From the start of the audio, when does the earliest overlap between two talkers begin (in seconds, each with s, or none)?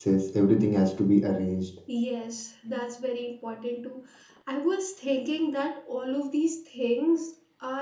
none